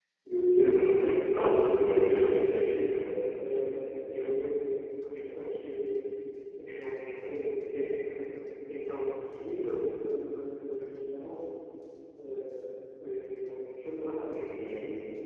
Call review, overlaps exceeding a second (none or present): present